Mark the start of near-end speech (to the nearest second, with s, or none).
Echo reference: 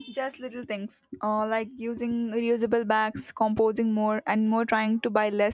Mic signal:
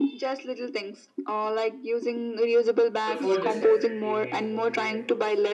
3 s